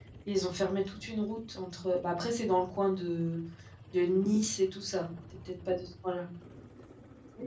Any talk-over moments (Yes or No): No